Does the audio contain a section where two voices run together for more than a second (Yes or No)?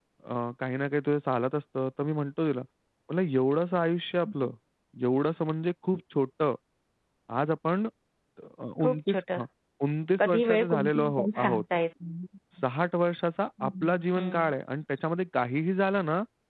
Yes